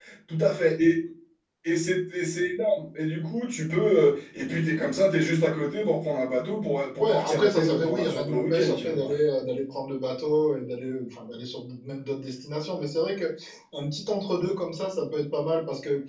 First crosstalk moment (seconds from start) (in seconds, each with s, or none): 7.0 s